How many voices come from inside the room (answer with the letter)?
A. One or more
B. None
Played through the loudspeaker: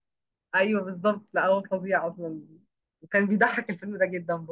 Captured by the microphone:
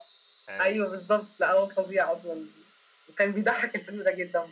A